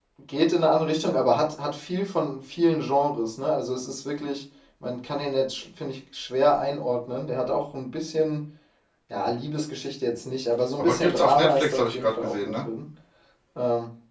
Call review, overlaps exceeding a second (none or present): present